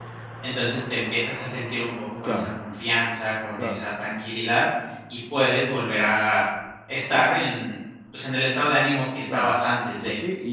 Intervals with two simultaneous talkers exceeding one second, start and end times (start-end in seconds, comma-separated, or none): none